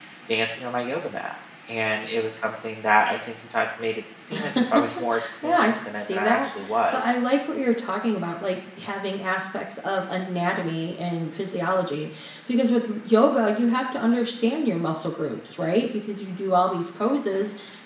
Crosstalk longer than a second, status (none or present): present